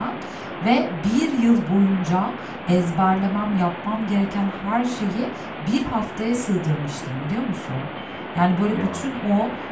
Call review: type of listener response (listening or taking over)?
listening